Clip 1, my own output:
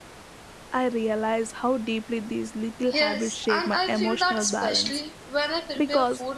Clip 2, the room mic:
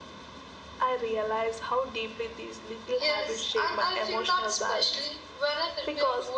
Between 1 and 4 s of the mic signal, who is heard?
echo only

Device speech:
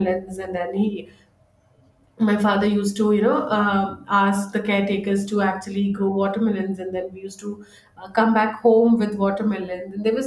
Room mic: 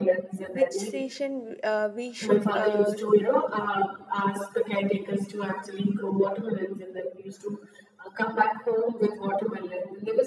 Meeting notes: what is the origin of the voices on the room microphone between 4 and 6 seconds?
echo only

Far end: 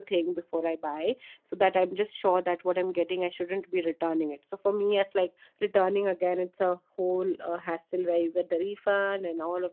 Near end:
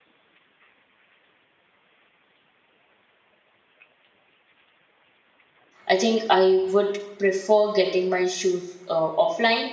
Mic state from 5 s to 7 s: user only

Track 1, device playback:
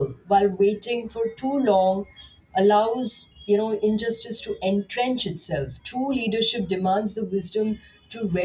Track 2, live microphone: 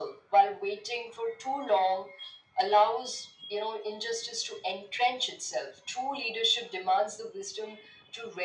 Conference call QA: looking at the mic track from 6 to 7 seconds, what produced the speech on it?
echo only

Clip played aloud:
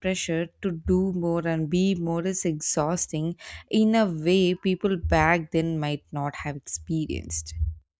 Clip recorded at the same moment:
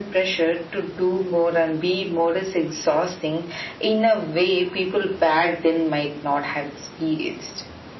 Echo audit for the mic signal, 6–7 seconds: echo only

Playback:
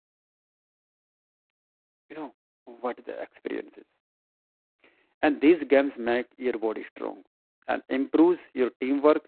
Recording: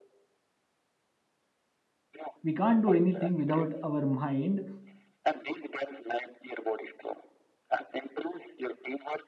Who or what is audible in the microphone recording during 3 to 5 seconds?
both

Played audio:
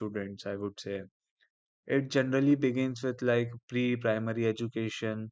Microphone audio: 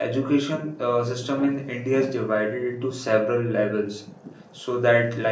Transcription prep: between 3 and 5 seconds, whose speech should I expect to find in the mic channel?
user only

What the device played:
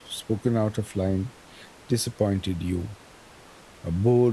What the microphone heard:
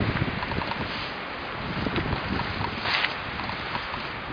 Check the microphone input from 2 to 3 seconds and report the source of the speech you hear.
neither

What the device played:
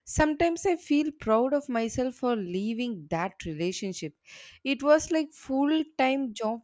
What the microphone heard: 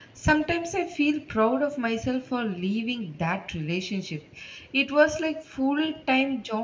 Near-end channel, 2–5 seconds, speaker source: echo only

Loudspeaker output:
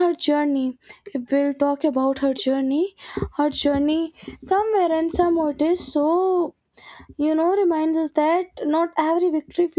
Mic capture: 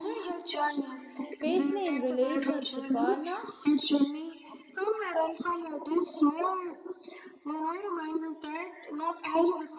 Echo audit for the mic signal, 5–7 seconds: echo only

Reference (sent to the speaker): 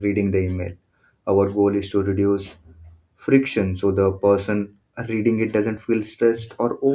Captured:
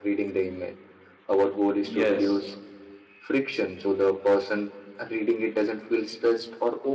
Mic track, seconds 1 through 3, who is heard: both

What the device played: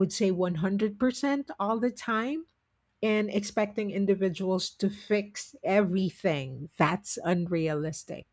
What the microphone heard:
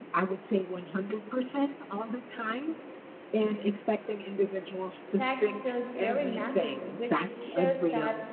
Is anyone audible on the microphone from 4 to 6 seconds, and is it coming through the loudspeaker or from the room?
both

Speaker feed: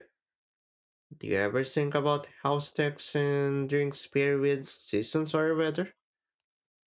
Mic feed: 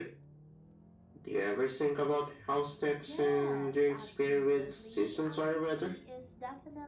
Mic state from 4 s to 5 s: both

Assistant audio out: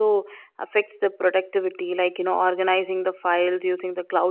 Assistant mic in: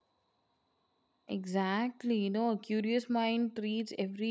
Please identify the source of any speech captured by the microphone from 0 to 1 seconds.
neither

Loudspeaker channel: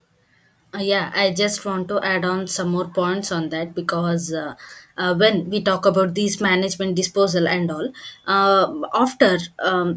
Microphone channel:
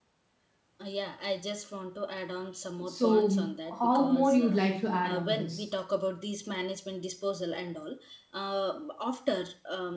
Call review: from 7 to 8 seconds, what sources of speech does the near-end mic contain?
echo only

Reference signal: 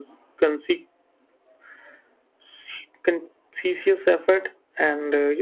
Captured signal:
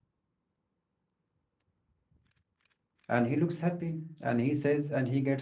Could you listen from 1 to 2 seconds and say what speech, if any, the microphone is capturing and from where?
neither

